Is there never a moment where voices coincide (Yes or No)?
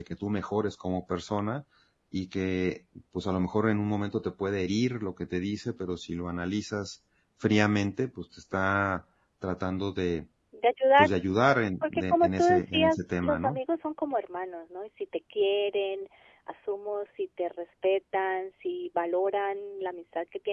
No